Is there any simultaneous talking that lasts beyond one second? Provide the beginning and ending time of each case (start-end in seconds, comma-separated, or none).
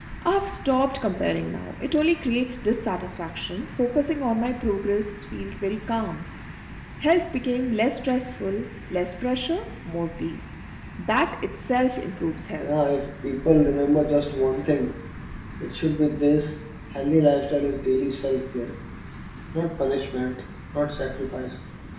none